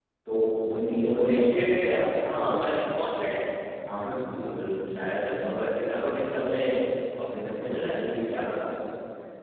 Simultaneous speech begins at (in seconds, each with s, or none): none